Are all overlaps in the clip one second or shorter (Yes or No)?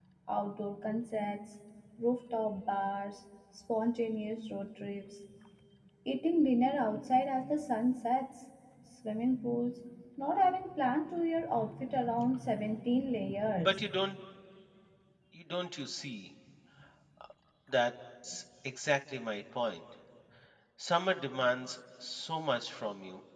Yes